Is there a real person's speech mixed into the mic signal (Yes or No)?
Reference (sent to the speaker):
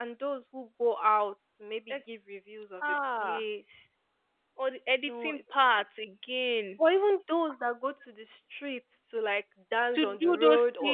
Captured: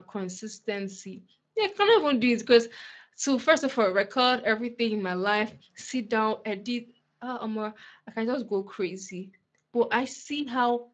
Yes